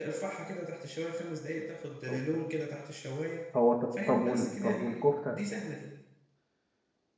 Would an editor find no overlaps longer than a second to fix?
No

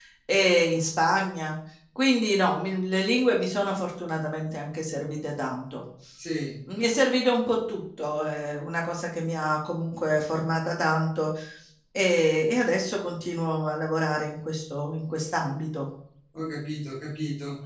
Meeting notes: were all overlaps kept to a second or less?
Yes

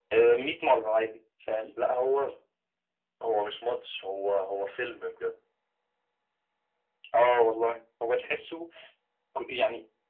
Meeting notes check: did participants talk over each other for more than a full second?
No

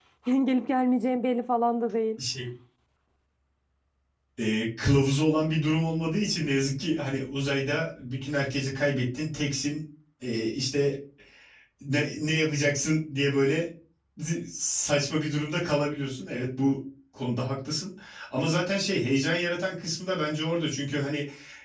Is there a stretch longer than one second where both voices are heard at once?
No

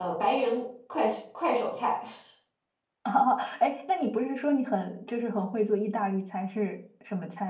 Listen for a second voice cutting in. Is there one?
No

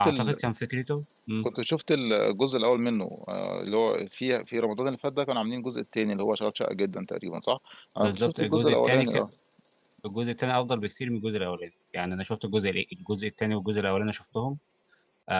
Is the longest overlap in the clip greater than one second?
Yes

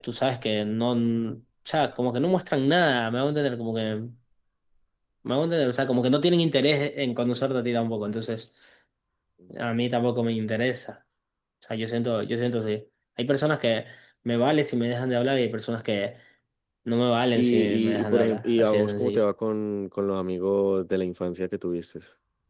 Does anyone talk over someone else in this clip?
Yes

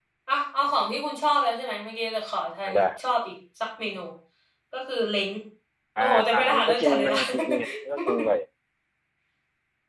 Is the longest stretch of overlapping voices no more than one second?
No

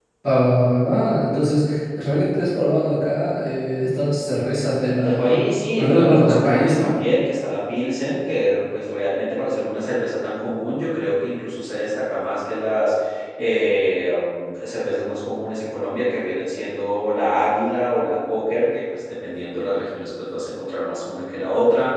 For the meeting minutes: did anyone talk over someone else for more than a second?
Yes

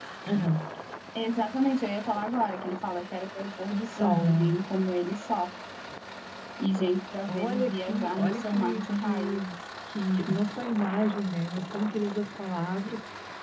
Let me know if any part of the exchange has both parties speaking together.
Yes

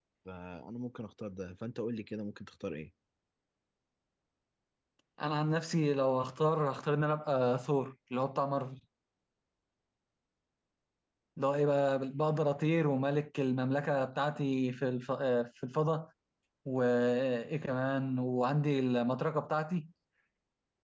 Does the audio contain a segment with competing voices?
No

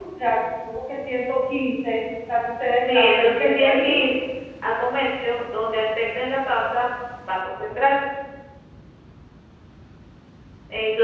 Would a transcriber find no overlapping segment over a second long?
No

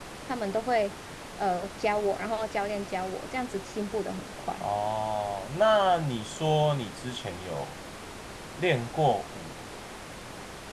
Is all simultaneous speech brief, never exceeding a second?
Yes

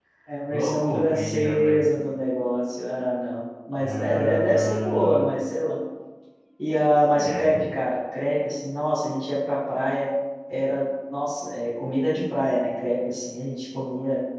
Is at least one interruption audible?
Yes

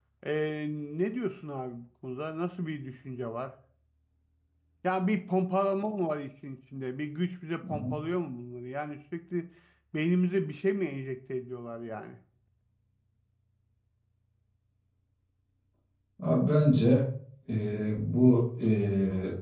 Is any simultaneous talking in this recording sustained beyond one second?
No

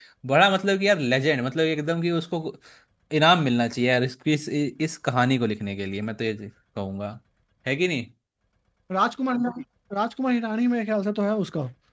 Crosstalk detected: No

